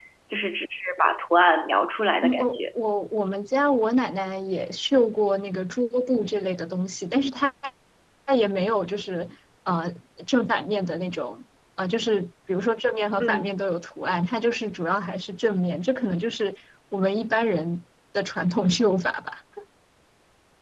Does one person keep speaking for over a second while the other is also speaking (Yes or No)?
No